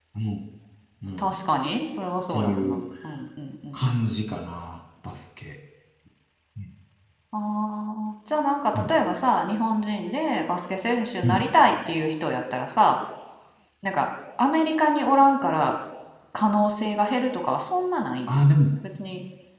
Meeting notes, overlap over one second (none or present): none